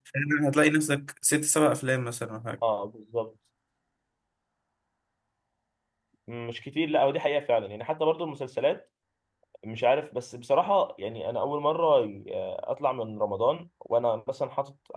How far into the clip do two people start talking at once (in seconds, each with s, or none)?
none